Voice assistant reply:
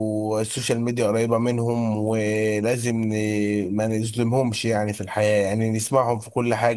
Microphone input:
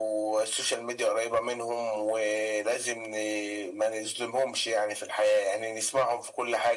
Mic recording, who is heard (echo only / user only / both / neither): echo only